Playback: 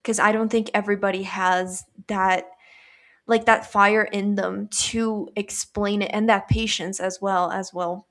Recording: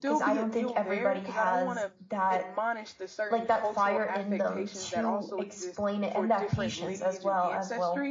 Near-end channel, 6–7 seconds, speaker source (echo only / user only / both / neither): both